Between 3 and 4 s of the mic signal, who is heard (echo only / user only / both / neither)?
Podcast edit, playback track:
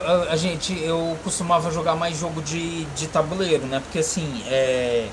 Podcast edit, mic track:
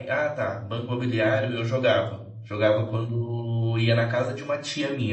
user only